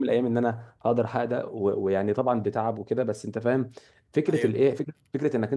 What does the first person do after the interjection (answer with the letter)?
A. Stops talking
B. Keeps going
B